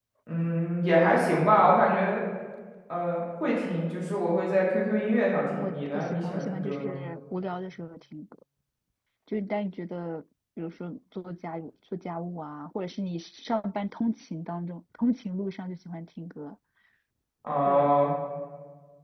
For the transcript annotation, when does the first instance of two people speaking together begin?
5.6 s

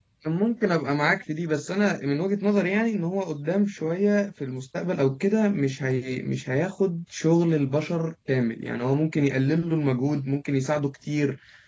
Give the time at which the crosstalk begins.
none

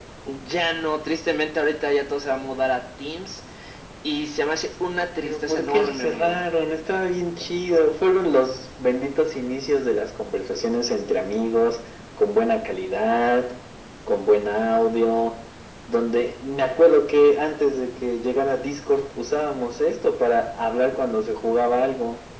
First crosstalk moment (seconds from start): 5.2 s

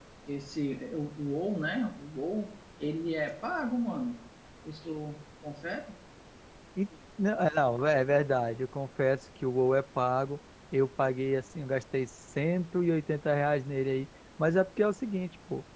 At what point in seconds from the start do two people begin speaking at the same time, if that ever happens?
none

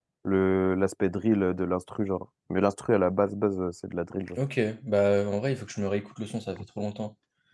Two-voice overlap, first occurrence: none

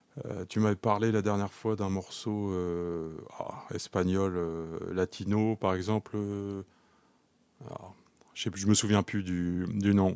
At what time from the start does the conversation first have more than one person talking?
none

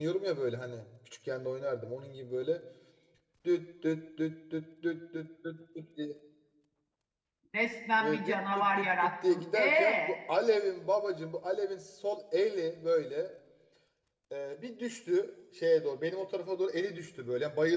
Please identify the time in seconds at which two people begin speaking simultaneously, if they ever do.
8.0 s

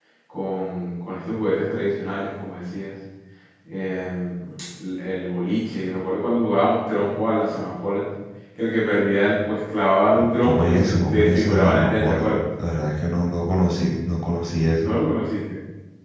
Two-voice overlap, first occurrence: 10.4 s

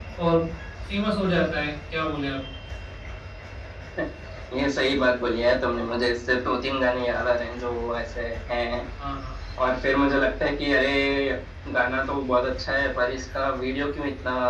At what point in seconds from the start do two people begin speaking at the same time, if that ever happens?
none

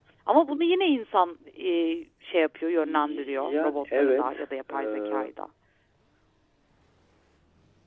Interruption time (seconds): 2.8 s

